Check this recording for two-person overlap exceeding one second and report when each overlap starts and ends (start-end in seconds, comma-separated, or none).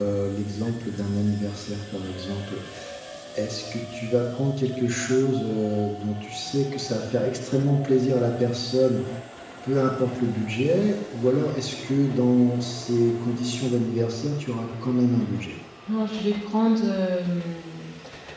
none